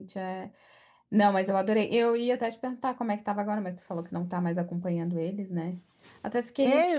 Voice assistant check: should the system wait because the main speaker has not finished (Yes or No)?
No